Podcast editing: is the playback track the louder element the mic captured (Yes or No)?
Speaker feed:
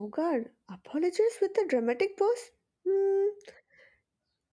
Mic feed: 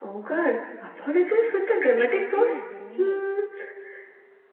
Yes